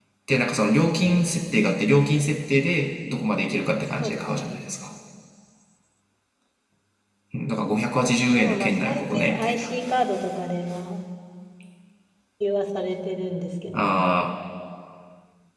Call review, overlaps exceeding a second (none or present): present